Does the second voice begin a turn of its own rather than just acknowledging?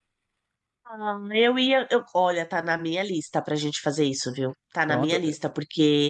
No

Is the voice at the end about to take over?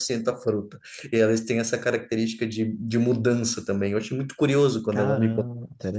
Yes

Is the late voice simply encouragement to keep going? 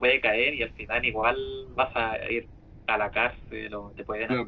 No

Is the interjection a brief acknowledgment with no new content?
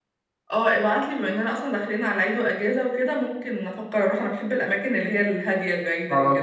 No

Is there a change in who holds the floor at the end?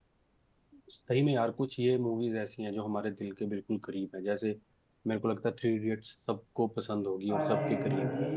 Yes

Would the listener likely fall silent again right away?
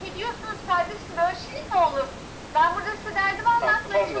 Yes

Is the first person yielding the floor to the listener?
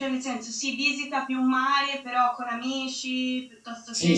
Yes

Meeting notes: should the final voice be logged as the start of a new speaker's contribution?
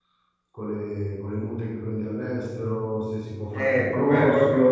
Yes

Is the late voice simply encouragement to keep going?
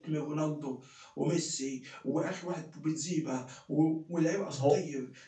Yes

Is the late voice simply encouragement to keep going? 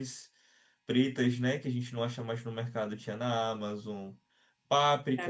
No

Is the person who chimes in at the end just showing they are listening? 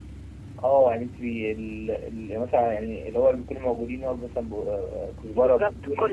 Yes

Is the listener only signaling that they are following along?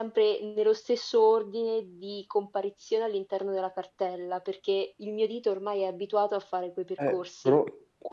No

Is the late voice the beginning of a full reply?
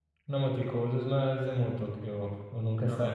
Yes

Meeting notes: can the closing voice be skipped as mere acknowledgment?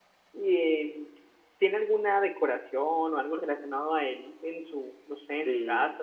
No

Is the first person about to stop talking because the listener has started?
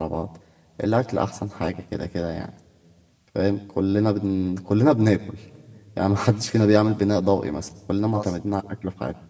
No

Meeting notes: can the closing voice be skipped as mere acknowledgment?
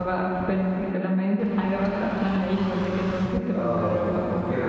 No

